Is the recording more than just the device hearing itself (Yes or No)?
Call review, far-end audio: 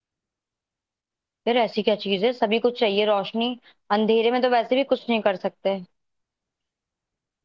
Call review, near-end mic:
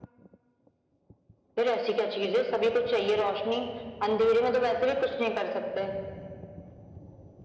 No